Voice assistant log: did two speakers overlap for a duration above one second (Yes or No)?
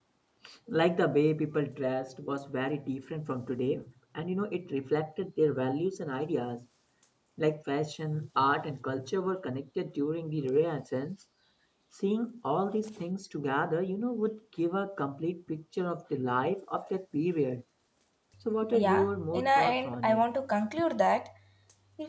Yes